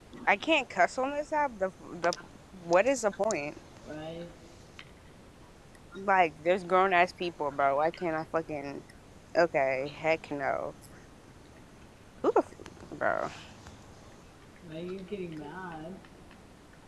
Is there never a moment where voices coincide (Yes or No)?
Yes